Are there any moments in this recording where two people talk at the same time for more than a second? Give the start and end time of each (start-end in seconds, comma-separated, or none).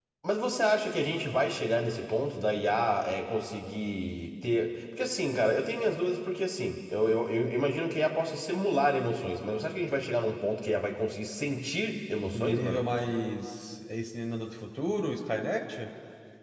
none